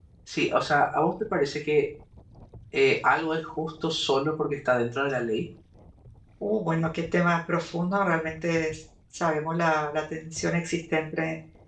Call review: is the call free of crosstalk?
Yes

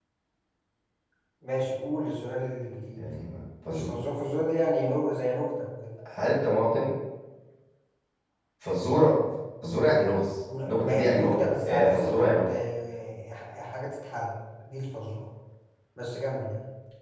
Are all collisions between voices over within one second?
No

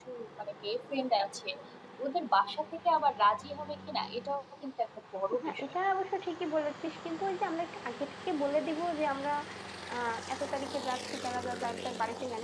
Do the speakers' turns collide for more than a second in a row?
No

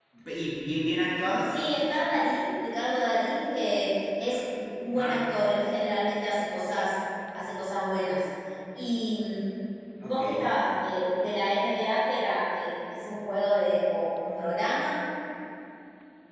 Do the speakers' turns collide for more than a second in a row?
No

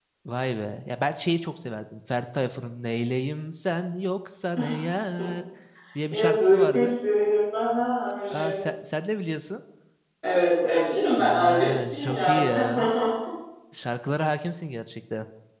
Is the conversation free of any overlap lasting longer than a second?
No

